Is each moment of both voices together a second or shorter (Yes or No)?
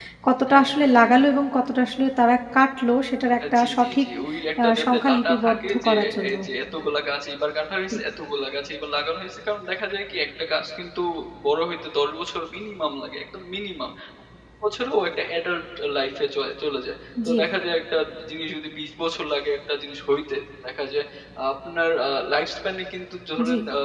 No